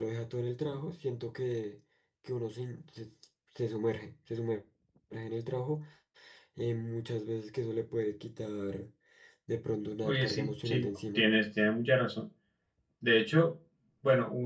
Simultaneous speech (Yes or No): Yes